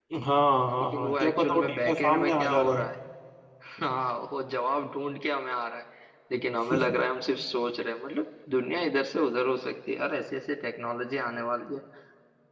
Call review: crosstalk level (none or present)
present